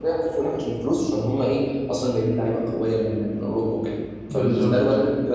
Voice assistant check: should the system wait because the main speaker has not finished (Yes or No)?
Yes